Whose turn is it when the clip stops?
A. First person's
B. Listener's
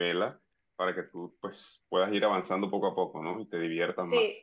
B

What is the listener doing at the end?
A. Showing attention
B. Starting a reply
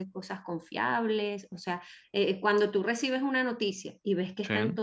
A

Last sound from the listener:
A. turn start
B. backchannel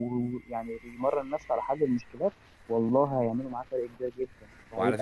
A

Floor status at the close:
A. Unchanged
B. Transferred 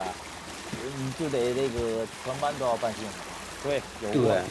B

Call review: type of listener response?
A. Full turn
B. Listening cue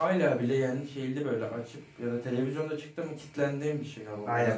A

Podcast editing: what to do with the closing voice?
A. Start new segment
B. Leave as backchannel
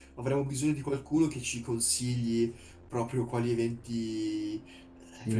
A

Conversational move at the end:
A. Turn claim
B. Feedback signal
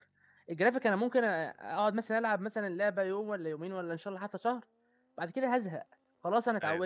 B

